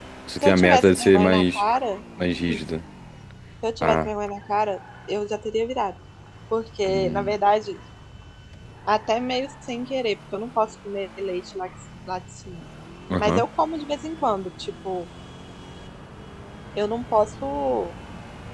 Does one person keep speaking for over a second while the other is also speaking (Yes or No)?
Yes